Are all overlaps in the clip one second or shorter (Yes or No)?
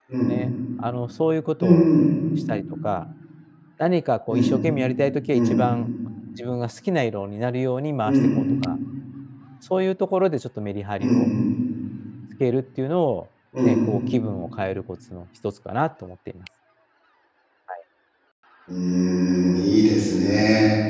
Yes